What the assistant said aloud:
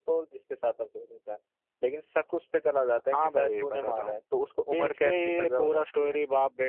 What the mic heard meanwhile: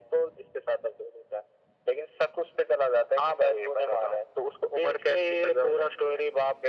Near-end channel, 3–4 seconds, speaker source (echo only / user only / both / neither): echo only